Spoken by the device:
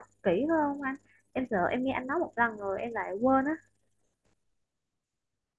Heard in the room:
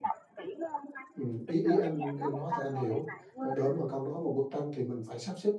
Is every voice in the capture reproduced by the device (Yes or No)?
No